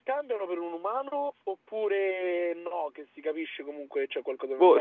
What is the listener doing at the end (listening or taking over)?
taking over